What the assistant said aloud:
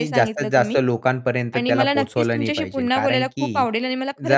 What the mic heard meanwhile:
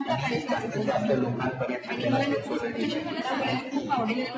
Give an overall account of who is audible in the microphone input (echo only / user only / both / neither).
both